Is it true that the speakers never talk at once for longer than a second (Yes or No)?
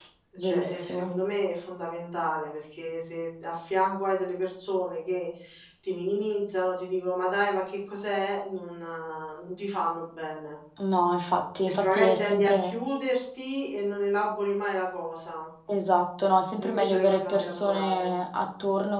No